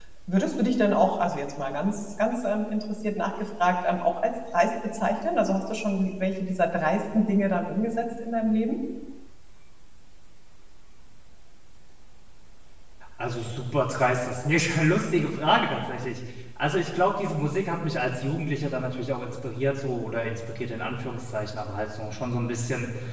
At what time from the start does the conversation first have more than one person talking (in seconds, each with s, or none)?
none